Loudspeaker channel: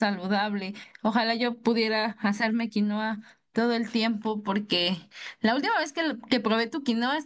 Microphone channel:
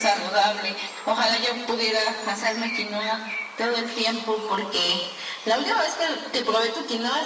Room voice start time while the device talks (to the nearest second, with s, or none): none